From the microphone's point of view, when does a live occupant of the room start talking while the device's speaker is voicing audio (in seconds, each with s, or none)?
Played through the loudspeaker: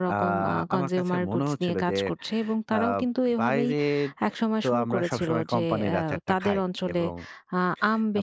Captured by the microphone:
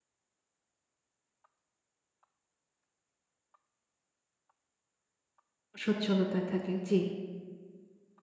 5.8 s